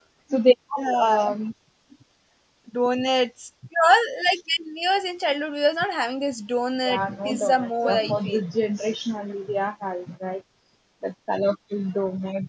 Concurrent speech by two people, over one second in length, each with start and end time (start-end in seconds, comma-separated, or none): 6.8-8.4